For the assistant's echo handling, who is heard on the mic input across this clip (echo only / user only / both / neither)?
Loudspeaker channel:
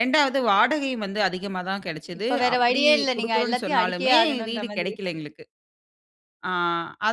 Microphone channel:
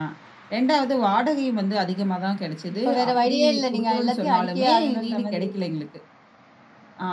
echo only